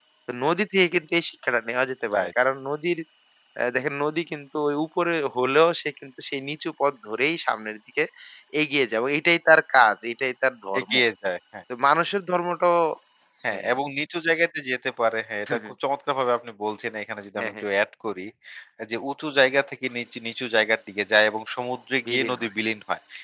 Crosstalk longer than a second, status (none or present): none